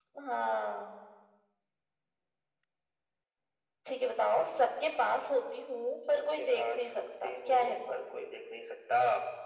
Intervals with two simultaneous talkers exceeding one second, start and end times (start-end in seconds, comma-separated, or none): 6.1-7.9